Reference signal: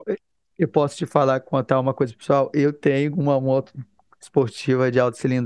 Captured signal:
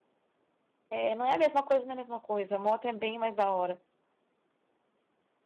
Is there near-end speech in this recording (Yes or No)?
Yes